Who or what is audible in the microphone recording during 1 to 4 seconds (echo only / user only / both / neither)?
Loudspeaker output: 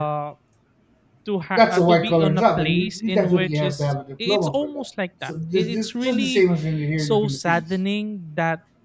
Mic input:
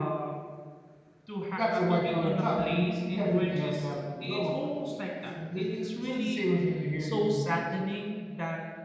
echo only